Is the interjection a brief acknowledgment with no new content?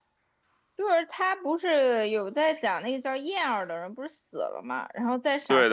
Yes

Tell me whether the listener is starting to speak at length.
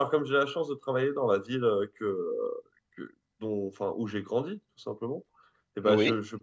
No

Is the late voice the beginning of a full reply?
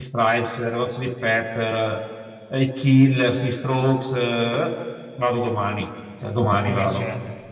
Yes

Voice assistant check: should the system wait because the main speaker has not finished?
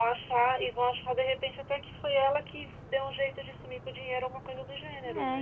No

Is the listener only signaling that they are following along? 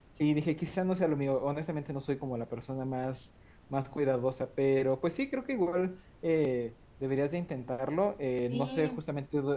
Yes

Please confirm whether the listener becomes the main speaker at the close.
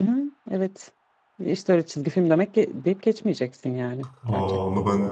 Yes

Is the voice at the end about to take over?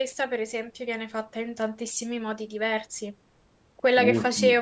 No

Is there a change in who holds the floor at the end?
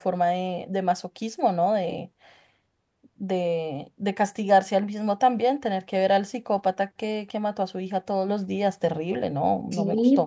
Yes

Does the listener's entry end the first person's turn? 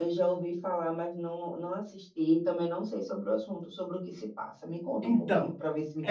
Yes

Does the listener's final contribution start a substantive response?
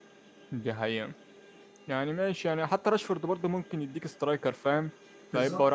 No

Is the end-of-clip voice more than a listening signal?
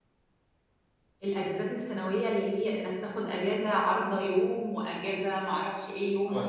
Yes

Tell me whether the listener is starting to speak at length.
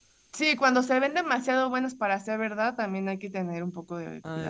Yes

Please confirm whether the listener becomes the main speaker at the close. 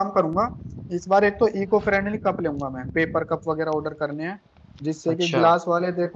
No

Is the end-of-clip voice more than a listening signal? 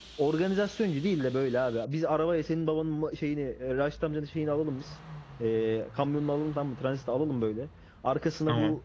No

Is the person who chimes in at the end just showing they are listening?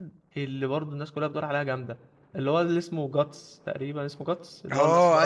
No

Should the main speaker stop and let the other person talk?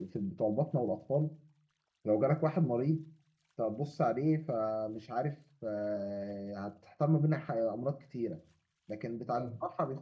No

